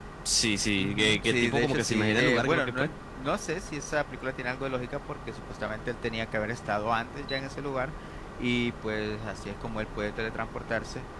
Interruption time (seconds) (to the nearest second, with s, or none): 1 s